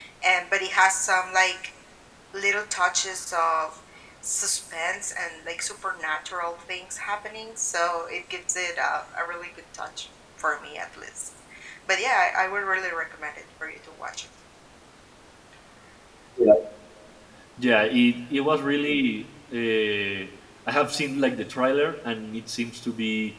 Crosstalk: none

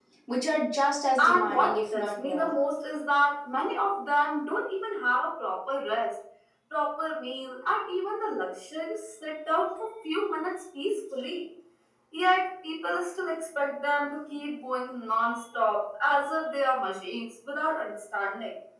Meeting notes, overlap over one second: present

